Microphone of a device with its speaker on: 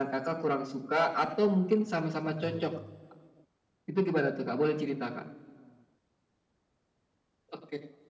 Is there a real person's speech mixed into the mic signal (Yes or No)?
Yes